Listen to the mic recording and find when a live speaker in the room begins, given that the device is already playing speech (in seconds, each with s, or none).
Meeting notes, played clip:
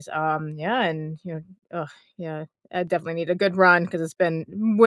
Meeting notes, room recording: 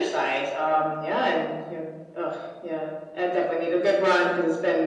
none